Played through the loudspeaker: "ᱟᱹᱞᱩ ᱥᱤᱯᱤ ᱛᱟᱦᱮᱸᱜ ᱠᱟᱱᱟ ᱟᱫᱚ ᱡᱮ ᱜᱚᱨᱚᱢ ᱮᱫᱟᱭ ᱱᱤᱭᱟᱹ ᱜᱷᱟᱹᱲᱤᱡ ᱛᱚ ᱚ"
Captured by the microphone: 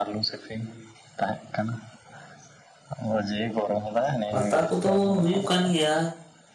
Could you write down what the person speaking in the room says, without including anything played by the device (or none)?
ᱯᱟᱛᱟ ᱠᱚᱫᱚ ᱦᱩᱭᱩᱜ ᱠᱟᱱ ᱜᱮᱭᱟ